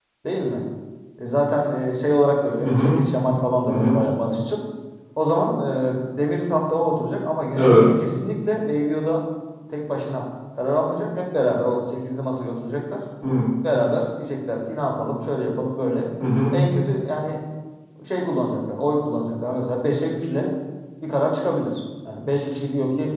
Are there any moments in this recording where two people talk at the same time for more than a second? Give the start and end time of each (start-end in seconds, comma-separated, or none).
none